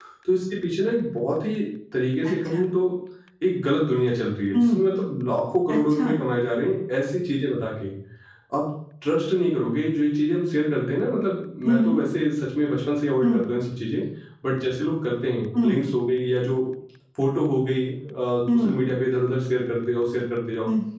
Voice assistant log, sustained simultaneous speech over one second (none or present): none